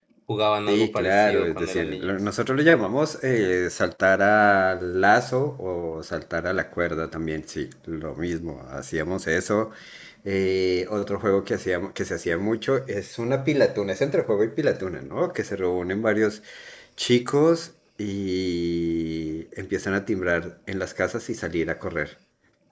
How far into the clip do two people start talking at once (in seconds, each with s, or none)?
0.7 s